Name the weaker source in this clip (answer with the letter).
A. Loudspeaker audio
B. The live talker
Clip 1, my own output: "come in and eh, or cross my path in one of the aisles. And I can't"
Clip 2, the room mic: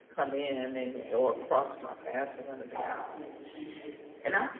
B